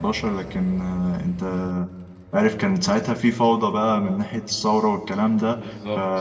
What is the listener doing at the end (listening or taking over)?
listening